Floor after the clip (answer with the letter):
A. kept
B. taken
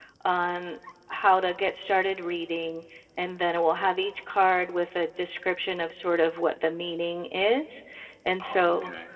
A